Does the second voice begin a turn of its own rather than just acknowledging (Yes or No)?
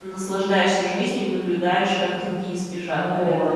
Yes